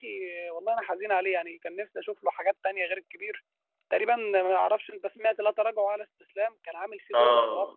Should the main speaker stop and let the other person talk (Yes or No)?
Yes